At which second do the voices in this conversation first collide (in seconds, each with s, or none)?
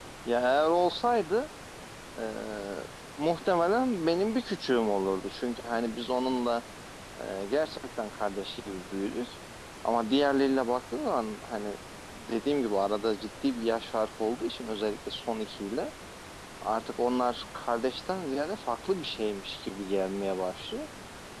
none